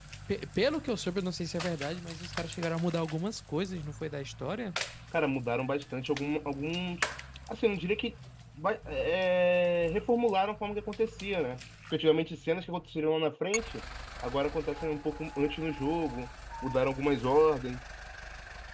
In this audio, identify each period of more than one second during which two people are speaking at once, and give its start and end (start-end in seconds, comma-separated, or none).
none